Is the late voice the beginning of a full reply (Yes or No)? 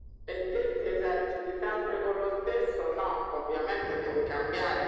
No